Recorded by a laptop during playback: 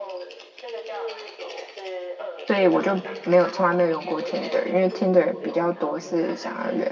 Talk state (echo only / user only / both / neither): both